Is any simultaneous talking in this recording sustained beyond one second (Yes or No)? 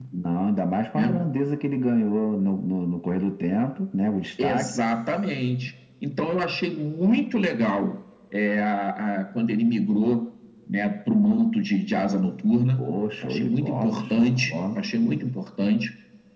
Yes